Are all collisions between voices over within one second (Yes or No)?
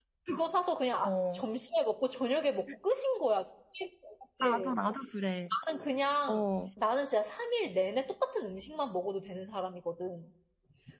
Yes